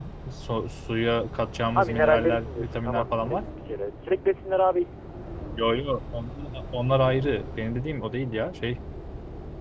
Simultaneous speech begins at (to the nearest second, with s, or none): 2 s